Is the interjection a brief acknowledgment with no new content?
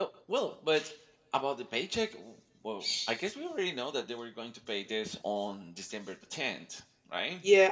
No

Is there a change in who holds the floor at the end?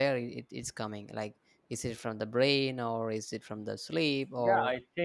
Yes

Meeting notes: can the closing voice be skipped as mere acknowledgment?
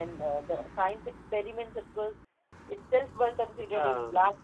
Yes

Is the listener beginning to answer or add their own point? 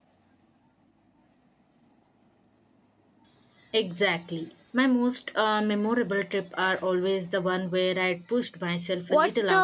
Yes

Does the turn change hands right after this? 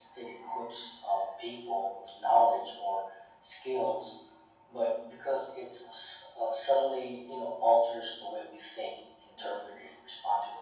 No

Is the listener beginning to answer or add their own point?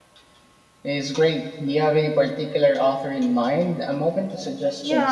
Yes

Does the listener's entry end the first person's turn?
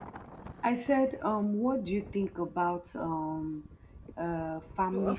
Yes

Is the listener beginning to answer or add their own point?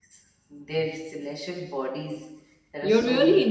Yes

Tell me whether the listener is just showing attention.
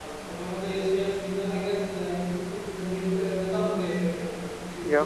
Yes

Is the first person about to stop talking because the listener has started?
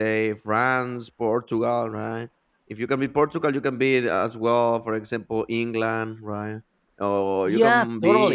No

